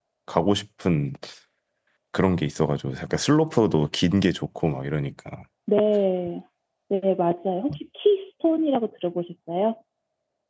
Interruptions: none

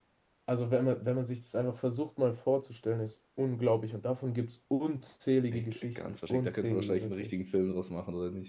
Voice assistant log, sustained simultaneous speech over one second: present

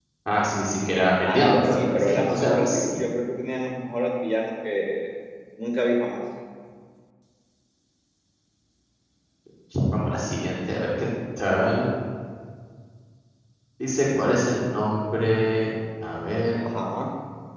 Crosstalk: present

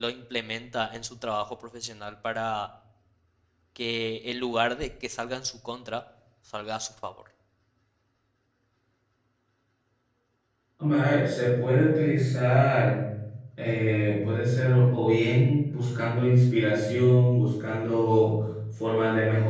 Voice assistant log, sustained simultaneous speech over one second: none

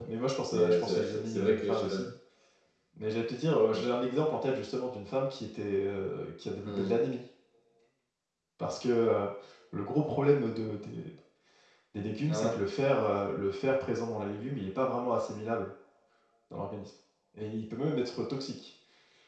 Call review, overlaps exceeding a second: present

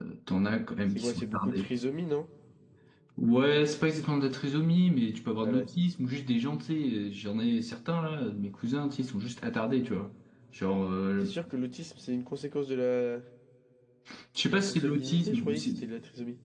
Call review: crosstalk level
present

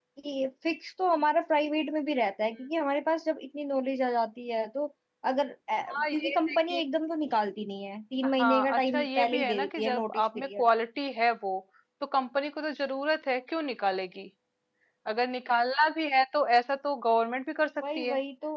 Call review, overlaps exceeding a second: present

